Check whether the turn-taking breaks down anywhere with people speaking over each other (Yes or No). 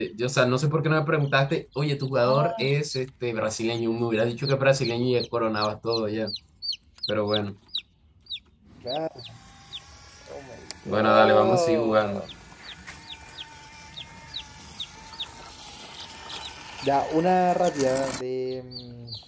Yes